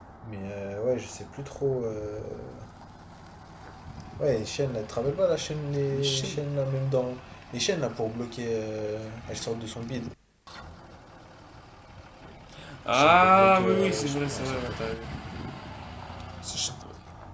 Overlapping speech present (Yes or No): Yes